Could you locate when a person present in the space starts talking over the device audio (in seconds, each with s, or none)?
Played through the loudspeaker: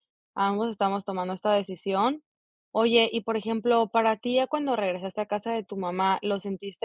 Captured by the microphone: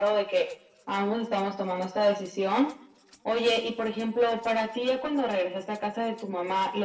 none